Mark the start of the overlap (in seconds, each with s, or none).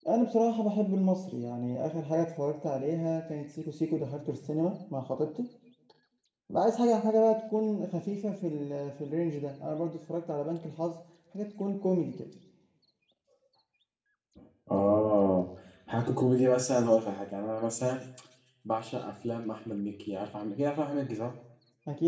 none